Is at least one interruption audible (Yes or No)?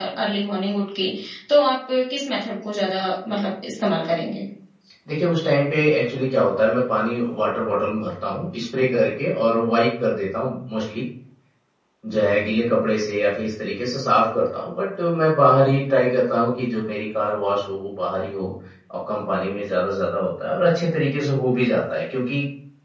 No